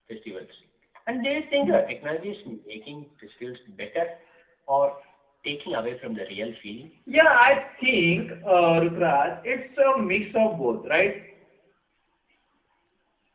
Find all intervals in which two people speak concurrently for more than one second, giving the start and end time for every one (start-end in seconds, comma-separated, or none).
none